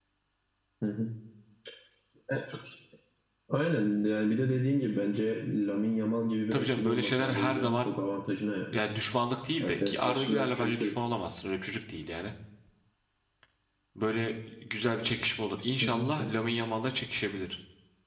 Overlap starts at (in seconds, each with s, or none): 6.5 s